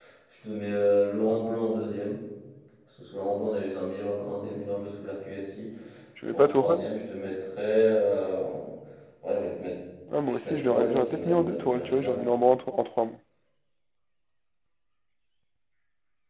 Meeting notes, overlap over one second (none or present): present